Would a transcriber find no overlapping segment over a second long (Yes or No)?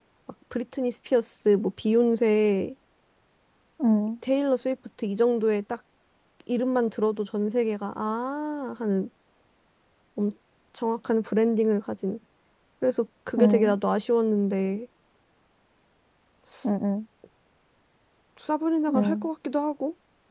Yes